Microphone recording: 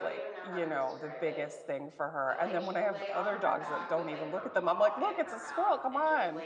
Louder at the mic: user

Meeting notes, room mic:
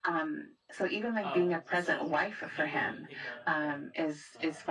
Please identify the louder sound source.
echo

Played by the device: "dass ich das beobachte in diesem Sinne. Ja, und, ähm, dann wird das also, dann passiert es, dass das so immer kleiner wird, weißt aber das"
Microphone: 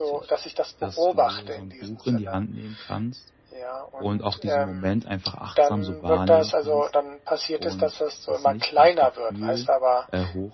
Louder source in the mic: echo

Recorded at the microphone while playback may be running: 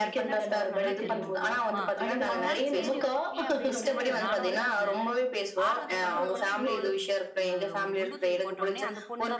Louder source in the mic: echo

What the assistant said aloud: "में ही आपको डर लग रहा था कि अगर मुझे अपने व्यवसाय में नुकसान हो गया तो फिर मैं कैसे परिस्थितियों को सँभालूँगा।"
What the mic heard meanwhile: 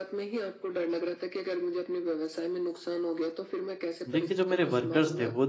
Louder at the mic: user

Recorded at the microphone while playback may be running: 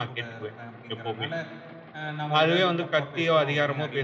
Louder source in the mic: echo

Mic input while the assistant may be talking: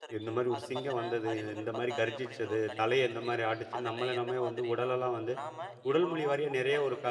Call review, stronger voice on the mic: user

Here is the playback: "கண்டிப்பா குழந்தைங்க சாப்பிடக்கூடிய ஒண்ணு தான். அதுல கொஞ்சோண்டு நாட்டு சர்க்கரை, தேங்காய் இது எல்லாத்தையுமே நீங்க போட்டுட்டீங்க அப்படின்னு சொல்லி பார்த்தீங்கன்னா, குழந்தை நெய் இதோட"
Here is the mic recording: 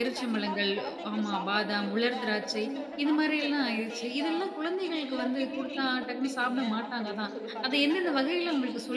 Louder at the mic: user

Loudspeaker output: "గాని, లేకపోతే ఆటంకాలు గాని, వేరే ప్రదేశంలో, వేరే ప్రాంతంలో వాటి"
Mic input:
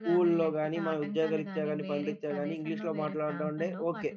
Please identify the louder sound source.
user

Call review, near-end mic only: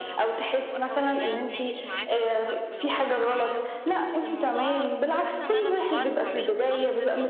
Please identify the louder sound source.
echo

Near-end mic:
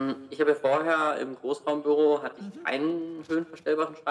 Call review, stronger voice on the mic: echo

